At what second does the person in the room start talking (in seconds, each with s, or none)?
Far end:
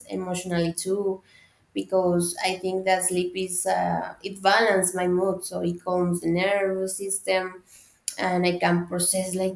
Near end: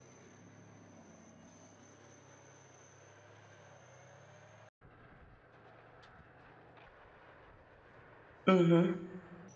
8.5 s